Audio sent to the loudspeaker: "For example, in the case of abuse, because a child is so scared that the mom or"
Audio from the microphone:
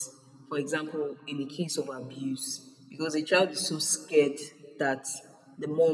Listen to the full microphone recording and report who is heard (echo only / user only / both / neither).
echo only